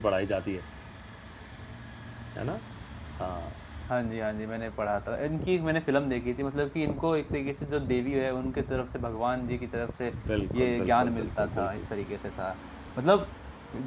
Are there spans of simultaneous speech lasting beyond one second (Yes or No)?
Yes